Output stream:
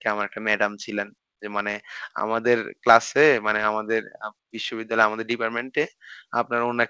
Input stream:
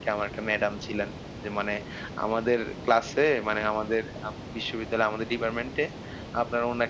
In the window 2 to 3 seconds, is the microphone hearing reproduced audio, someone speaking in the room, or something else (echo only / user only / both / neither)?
echo only